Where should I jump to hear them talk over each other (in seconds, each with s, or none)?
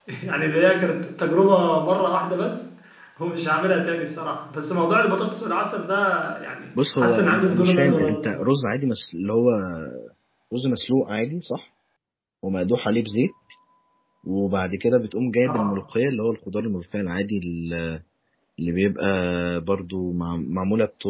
7.0 s